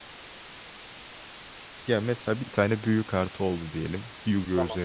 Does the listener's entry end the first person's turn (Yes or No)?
No